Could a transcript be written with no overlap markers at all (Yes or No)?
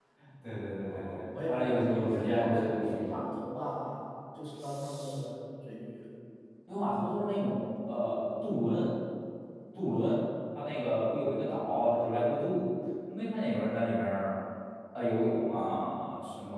No